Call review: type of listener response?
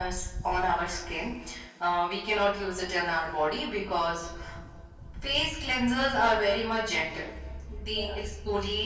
listening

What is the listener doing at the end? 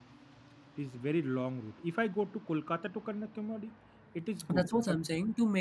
taking over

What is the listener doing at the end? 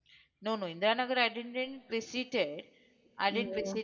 listening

